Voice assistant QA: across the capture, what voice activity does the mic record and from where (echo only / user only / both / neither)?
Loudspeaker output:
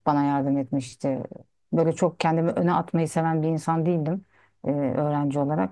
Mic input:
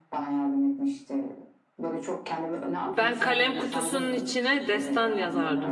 both